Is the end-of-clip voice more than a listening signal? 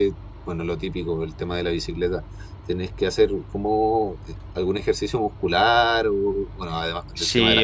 Yes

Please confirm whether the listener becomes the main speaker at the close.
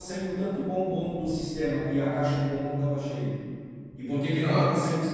No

